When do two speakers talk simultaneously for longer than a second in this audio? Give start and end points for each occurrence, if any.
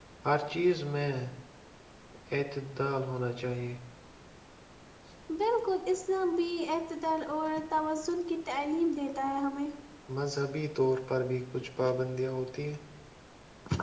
none

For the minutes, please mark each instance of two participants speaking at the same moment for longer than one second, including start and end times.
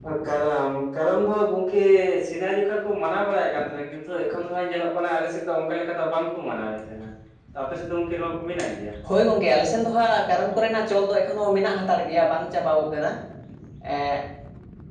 none

